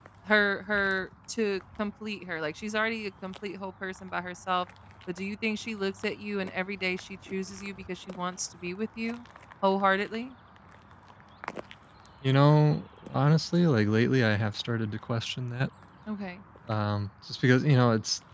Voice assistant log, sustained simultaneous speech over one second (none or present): none